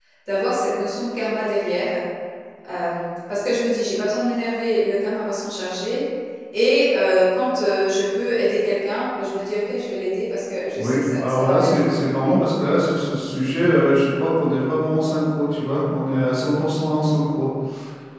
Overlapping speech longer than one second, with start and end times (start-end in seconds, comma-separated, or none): 10.8-12.3